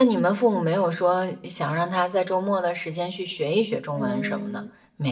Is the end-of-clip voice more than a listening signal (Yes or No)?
Yes